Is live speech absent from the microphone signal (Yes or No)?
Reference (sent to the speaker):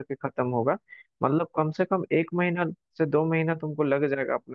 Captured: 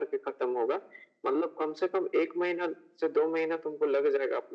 Yes